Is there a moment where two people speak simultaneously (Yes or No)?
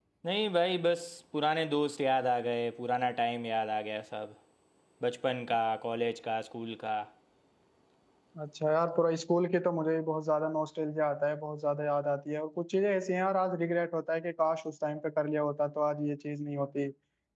No